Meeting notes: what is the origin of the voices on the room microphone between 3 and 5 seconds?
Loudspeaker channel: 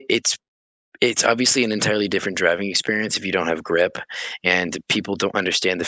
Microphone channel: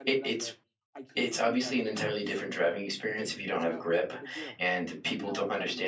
both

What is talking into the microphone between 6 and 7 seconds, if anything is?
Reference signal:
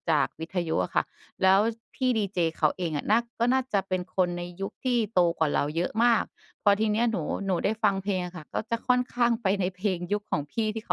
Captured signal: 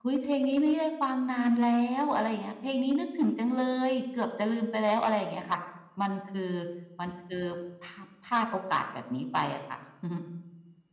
user only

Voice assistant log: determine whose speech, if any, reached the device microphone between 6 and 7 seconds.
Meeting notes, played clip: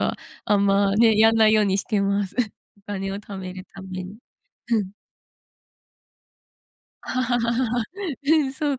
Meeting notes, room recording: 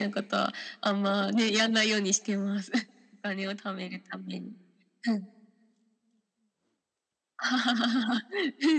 neither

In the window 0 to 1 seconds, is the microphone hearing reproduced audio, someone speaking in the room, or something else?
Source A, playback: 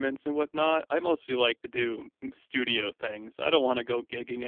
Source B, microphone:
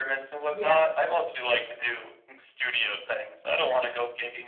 both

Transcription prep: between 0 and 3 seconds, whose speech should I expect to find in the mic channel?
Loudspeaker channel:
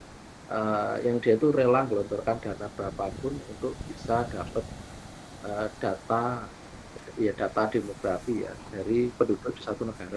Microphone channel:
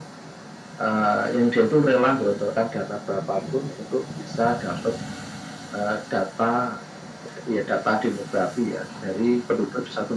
echo only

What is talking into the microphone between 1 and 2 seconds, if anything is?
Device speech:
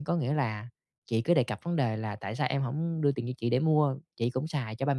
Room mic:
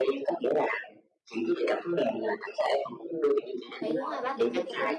echo only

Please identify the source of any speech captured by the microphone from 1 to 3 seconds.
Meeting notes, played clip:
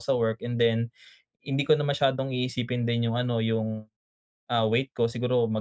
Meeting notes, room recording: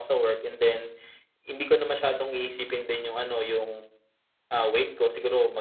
echo only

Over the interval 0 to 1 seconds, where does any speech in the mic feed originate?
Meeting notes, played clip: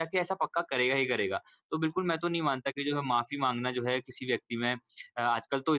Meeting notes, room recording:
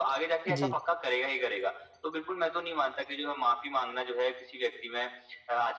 both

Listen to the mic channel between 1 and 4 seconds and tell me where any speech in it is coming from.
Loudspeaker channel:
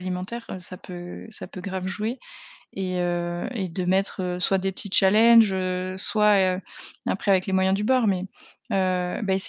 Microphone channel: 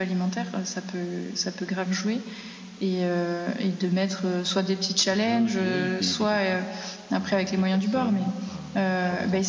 echo only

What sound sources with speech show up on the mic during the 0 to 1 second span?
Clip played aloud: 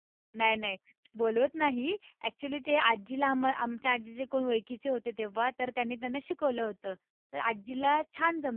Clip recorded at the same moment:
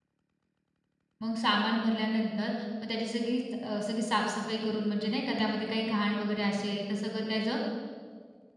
neither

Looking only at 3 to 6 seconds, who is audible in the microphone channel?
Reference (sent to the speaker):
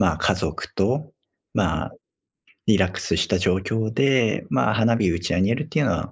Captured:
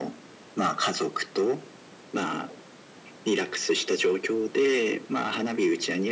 echo only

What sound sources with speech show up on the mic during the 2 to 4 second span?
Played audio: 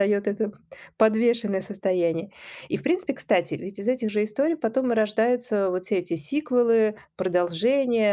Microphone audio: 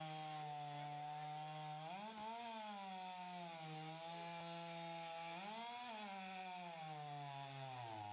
neither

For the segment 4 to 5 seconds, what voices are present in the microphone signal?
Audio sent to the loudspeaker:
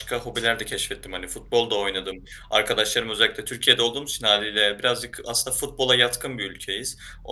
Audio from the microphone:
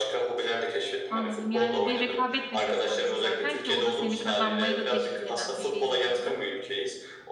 both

